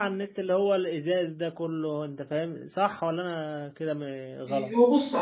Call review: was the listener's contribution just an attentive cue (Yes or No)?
No